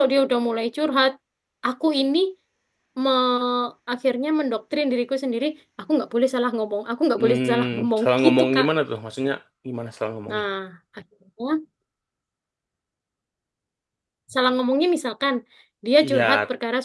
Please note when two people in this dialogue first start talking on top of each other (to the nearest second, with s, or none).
7 s